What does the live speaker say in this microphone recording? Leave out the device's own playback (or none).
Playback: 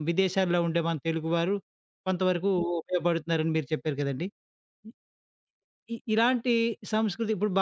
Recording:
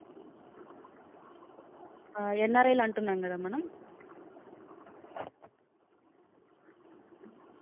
ఆహ్, ఎన్ఆర్ఐలు అంటున్నాం గదా! మనం.